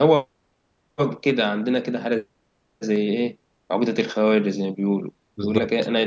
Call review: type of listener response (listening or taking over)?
listening